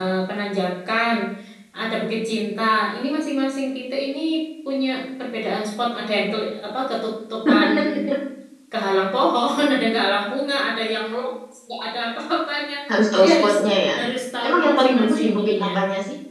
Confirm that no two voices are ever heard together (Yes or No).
No